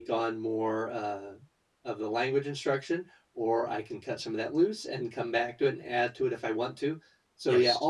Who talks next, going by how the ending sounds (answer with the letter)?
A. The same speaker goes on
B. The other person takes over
A